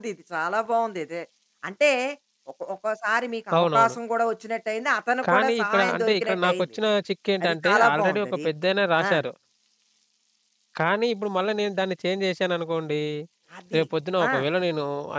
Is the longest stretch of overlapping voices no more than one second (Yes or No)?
No